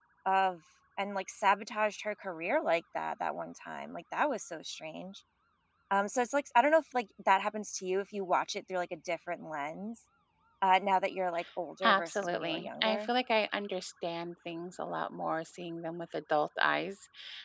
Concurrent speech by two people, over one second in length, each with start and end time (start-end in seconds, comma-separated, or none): 11.8-13.1